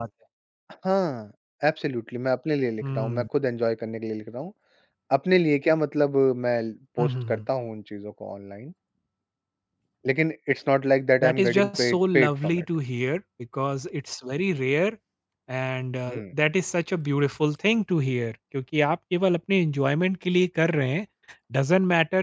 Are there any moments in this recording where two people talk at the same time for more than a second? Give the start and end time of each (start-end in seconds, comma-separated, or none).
11.2-12.6